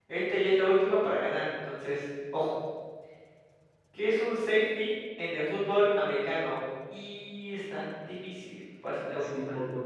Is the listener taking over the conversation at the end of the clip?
Yes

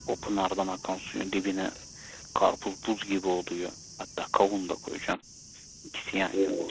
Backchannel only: Yes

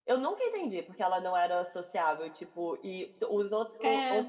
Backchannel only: Yes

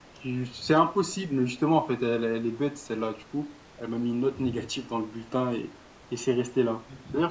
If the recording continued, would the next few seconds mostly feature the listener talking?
No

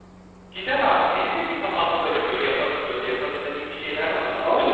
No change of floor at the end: No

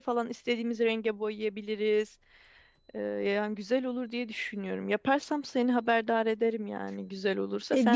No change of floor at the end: No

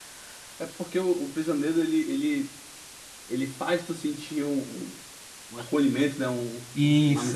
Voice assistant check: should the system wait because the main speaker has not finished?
No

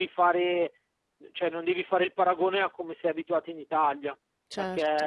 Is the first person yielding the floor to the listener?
No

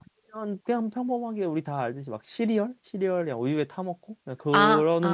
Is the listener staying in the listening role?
No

